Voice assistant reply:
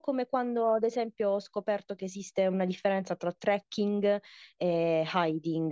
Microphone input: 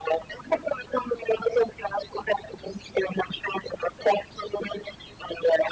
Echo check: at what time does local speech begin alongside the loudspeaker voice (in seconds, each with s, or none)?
none